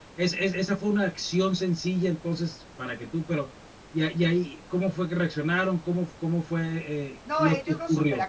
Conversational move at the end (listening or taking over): taking over